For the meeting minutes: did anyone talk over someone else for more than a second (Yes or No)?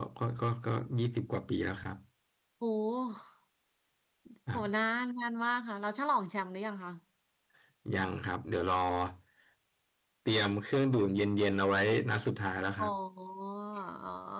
No